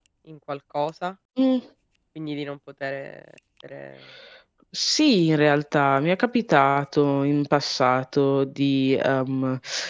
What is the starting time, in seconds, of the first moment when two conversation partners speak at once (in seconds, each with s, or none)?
none